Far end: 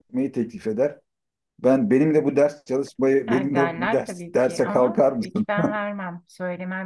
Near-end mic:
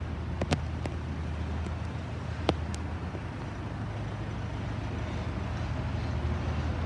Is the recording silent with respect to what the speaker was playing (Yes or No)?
Yes